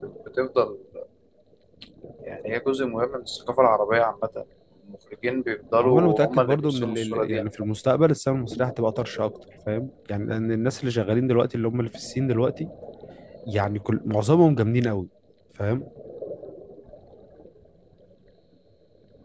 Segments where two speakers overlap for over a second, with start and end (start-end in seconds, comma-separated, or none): 5.8-7.5